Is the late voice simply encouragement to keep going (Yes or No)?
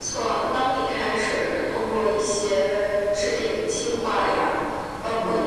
Yes